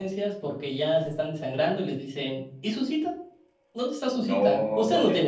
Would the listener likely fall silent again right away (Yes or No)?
Yes